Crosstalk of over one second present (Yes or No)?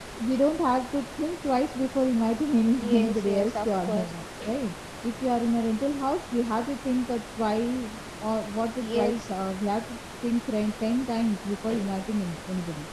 Yes